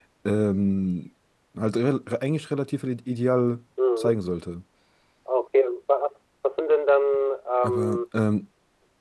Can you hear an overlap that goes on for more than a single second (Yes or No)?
No